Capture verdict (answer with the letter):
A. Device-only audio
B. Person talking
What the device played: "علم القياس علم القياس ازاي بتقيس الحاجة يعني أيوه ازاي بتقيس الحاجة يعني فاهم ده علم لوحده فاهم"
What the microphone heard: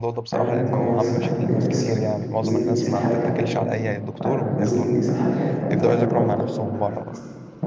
B